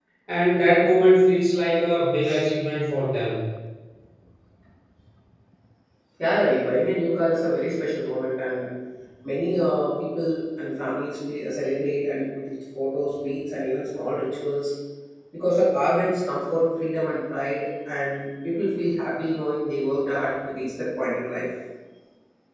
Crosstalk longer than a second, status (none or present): none